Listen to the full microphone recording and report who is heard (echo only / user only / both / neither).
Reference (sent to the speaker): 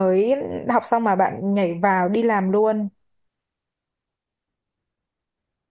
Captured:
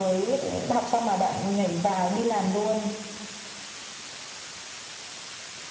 echo only